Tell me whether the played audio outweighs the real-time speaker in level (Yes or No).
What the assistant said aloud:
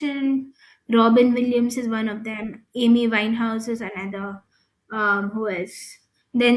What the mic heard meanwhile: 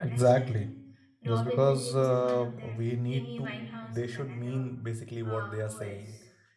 No